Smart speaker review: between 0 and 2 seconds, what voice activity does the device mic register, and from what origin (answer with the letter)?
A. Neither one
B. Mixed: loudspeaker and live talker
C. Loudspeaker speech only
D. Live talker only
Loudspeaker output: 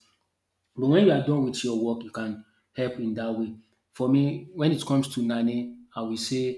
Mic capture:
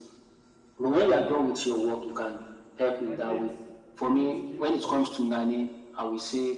C